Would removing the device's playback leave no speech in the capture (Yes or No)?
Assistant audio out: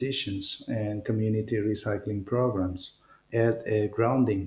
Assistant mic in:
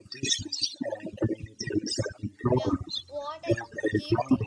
No